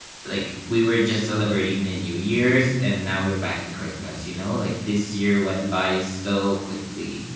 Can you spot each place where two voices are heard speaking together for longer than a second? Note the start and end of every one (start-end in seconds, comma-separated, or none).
none